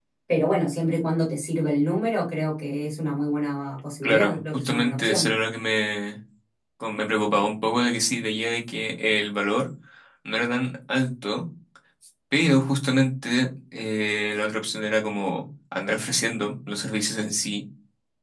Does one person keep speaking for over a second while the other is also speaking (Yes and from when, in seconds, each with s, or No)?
Yes, from 4.0 s